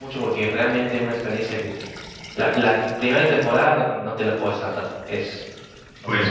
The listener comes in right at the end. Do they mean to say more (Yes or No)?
Yes